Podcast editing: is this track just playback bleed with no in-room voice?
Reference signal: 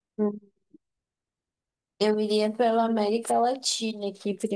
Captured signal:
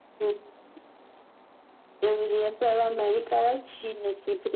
Yes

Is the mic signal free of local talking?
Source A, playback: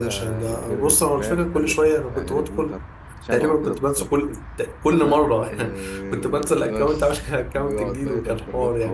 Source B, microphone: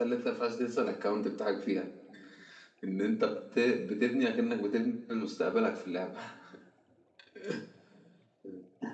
No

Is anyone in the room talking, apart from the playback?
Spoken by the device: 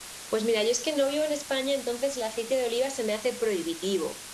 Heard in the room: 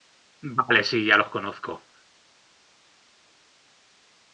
Yes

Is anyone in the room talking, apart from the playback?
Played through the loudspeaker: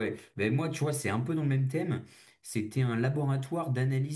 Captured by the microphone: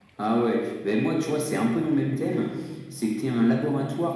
No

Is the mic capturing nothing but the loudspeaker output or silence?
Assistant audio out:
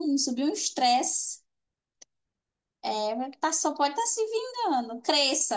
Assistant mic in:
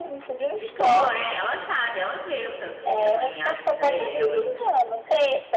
No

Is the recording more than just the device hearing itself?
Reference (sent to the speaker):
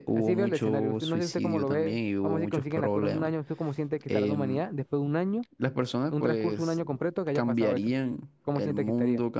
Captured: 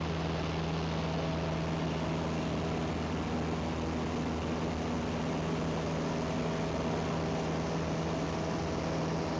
No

